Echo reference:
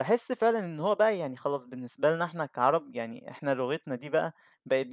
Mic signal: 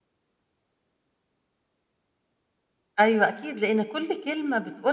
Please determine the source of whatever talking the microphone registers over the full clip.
user only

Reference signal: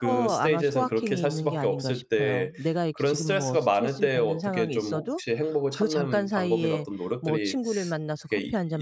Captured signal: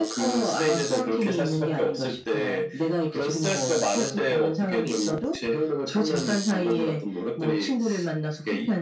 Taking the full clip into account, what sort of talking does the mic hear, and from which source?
echo only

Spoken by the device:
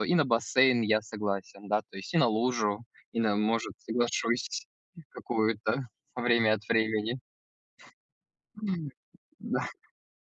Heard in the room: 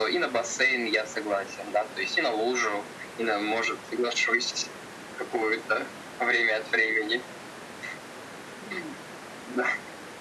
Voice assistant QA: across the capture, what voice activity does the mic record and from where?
echo only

